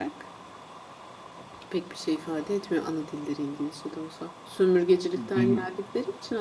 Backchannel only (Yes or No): Yes